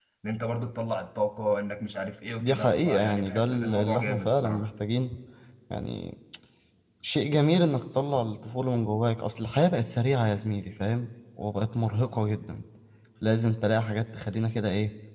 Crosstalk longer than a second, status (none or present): present